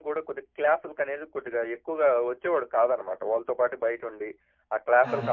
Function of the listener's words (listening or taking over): listening